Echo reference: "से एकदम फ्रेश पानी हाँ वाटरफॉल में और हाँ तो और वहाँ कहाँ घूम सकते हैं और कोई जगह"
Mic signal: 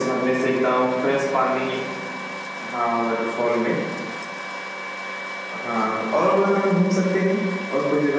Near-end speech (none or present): none